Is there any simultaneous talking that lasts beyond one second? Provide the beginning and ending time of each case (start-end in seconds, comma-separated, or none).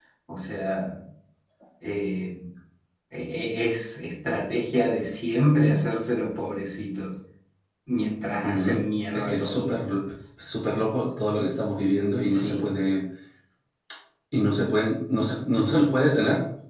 8.4-9.8